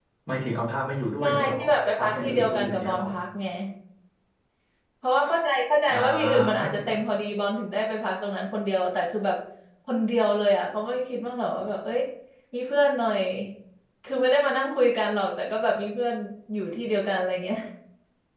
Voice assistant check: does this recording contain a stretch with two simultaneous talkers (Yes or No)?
Yes